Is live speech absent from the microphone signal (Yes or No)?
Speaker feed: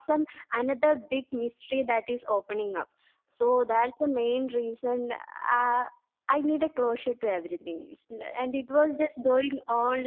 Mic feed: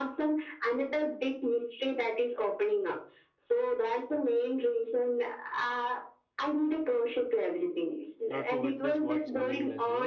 No